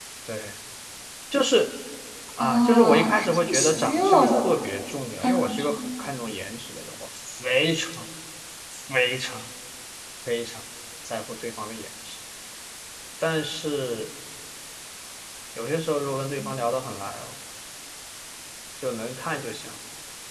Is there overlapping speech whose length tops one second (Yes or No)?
Yes